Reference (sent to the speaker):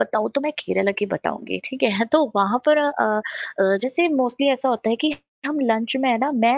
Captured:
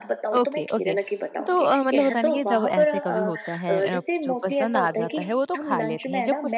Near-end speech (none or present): present